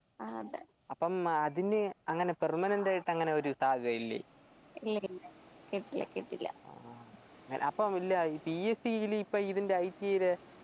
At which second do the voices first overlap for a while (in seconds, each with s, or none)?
none